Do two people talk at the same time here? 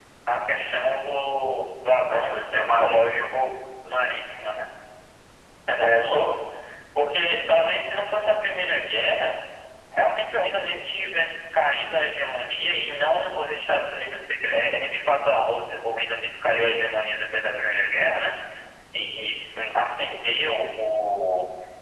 Yes, from 2.0 s

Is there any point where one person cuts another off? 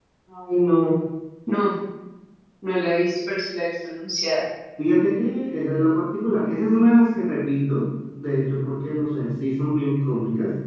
No

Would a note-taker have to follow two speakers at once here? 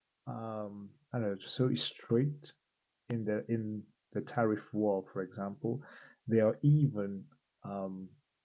No

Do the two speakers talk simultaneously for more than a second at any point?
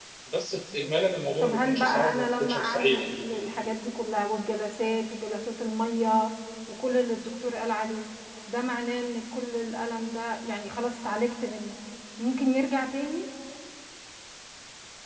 Yes, from 1.4 s

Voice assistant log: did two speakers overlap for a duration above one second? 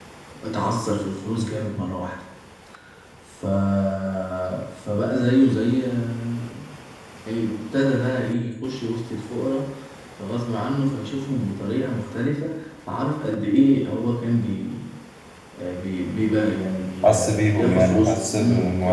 Yes, from 17.0 s

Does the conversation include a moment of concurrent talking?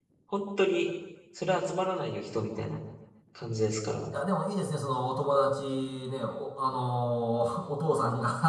No

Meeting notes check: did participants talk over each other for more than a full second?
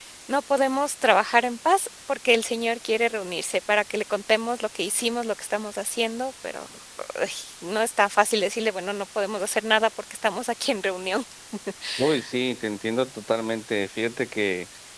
No

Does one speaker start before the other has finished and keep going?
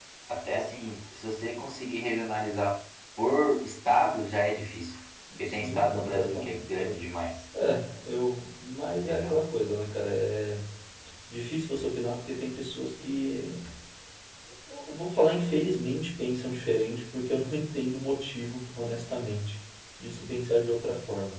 Yes, from 5.4 s

